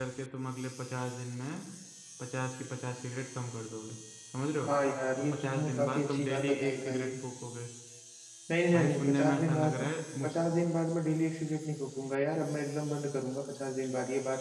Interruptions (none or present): present